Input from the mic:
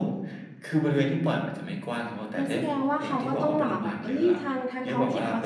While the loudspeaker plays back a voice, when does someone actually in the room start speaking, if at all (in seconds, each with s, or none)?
2.4 s